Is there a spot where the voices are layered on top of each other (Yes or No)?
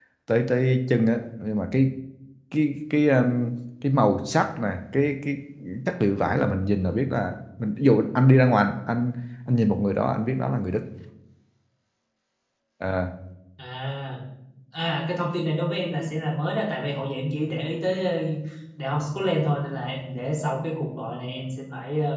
No